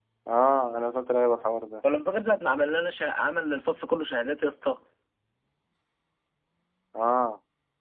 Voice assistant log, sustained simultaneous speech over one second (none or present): none